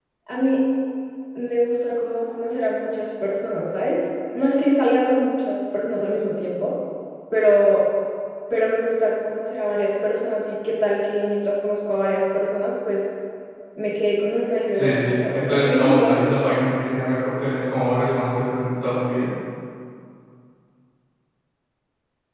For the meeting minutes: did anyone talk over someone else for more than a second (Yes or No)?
Yes